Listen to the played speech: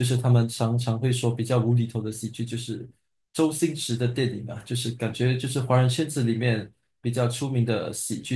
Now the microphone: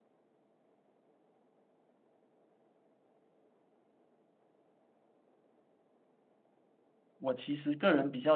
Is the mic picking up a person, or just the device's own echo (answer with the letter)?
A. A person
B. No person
A